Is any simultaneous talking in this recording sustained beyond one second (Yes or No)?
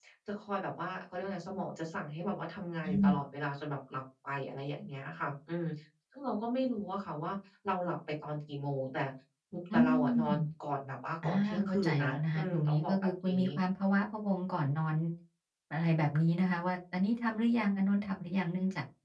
Yes